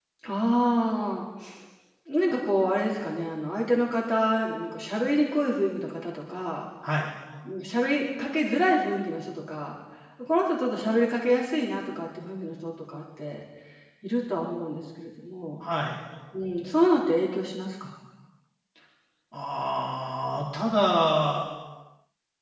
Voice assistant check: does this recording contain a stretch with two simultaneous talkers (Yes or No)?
No